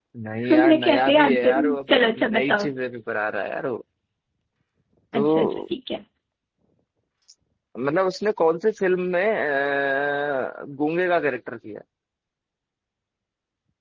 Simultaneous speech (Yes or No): Yes